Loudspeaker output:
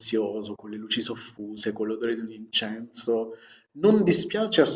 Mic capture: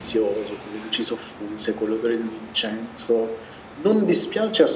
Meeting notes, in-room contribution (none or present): none